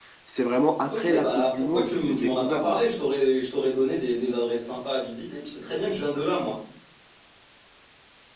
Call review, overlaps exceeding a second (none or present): present